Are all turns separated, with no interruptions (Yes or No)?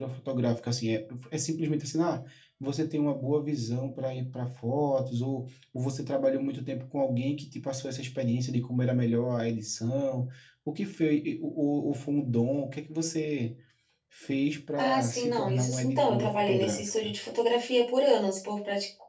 No